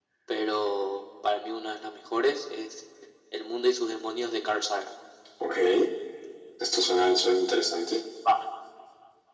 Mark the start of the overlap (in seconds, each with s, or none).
none